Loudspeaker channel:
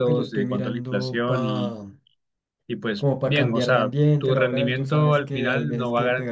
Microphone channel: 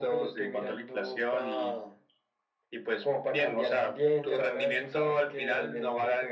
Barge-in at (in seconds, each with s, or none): none